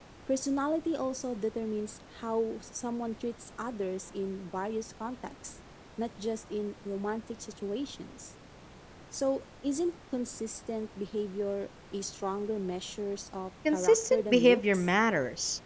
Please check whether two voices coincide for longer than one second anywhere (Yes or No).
Yes